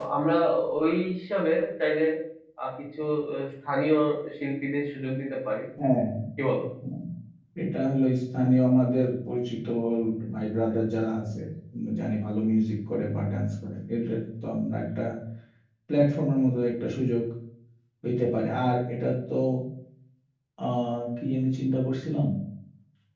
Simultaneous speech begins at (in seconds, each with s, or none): none